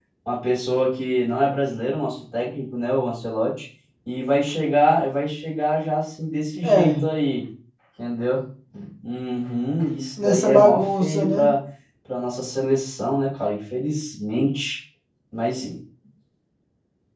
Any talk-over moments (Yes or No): Yes